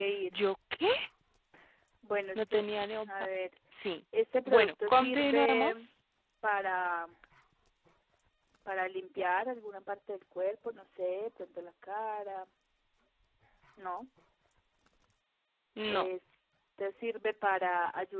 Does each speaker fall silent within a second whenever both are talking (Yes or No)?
No